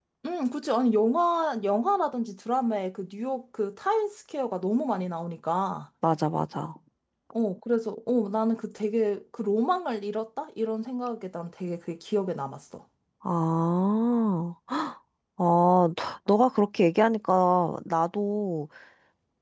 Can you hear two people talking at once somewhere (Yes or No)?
No